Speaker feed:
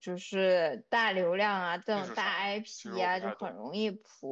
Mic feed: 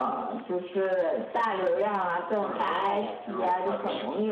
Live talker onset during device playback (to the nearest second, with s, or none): 3 s